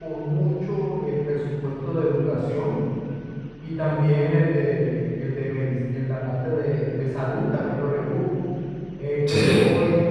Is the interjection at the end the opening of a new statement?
No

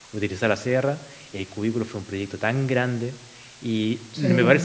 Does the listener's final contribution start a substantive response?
No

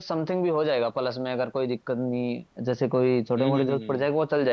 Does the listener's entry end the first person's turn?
No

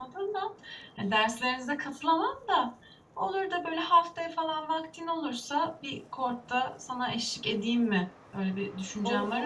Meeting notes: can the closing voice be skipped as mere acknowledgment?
No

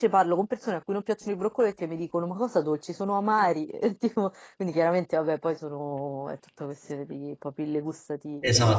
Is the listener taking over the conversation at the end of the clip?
Yes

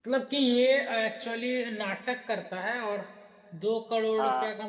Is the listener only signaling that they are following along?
Yes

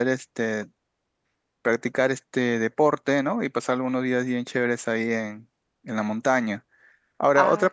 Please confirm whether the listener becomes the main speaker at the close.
No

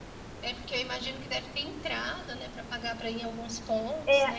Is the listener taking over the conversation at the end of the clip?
Yes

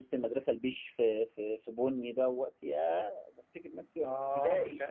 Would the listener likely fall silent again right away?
No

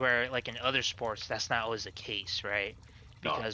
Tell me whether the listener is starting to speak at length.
No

